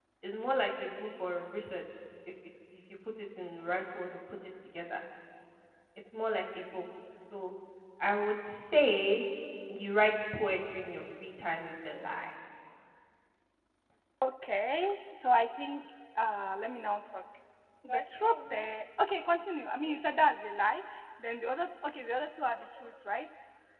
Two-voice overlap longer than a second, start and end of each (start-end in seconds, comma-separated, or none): none